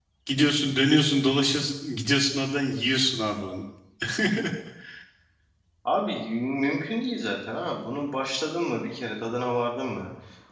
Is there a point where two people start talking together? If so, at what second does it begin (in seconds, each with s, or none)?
none